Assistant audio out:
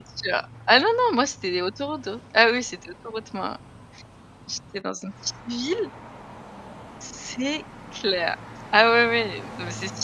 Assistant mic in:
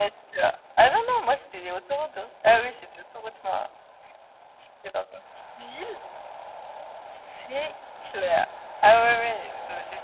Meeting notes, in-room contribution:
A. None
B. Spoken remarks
A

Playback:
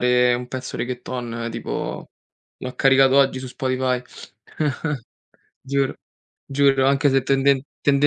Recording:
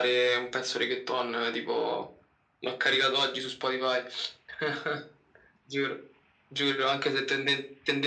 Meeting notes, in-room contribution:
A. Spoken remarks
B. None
B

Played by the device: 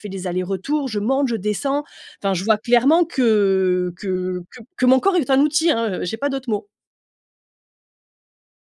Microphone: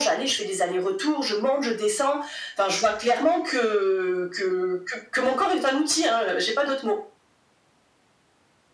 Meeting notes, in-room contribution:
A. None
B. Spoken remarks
A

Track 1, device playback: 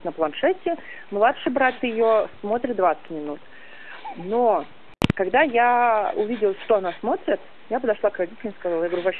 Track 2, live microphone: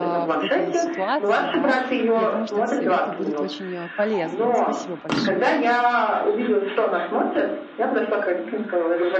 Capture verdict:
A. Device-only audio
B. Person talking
B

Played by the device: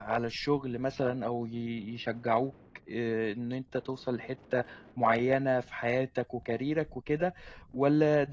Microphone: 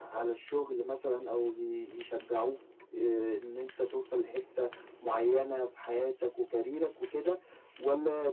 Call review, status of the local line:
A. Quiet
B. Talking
A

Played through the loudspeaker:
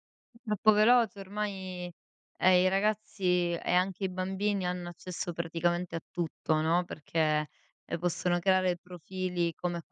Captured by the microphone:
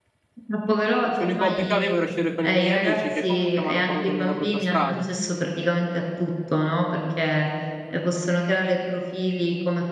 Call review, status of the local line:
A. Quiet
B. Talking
B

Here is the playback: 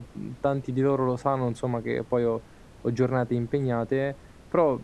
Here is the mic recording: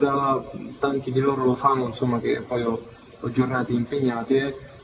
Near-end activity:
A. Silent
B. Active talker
A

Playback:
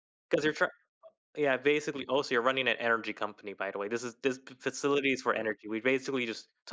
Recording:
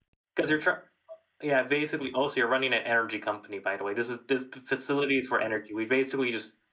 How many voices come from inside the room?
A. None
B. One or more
A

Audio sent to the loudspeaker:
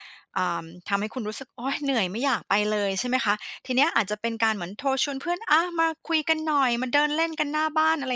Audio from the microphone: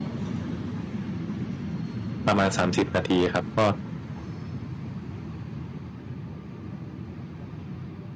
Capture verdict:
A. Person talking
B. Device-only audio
A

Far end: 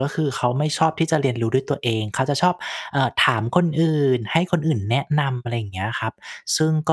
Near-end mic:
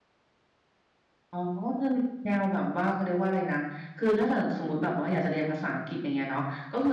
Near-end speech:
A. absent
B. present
B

